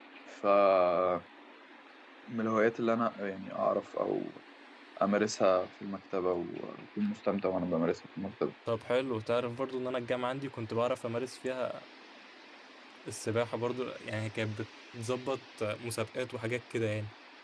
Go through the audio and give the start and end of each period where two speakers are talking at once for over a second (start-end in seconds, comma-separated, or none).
none